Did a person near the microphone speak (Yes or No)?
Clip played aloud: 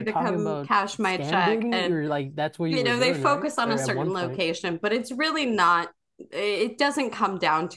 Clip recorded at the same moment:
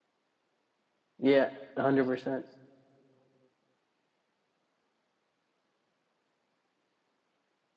Yes